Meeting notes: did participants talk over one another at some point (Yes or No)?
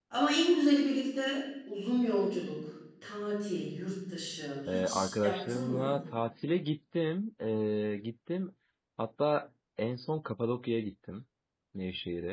Yes